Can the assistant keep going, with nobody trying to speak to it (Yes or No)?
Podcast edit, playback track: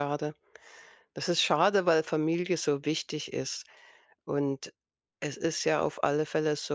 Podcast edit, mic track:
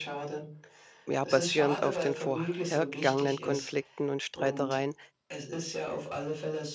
No